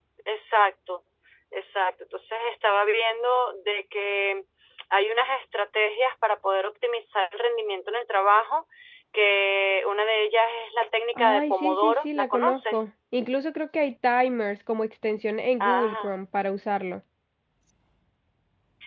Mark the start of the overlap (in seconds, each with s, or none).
11.1 s